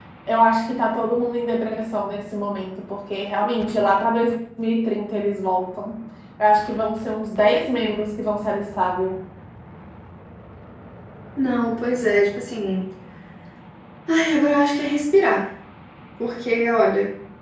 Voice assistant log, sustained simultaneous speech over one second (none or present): none